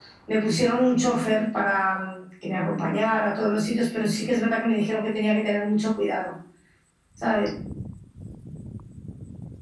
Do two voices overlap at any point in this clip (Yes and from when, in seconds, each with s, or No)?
No